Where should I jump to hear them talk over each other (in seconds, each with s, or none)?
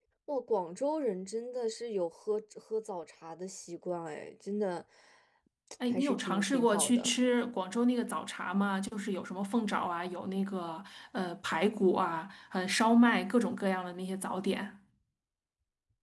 5.9 s